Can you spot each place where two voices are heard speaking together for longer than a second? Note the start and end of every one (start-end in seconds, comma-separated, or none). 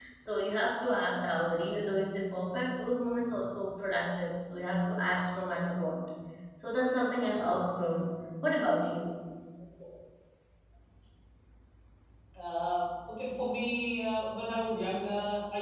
none